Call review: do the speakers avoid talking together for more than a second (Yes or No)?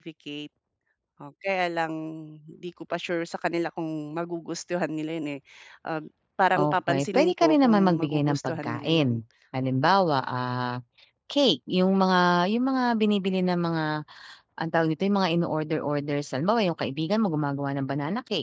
No